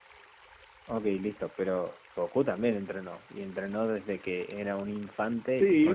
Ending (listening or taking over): taking over